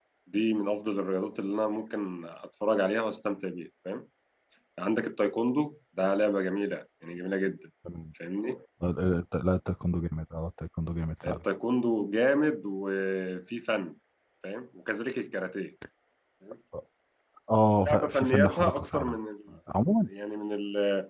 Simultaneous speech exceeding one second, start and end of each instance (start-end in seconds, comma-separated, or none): 17.8-19.2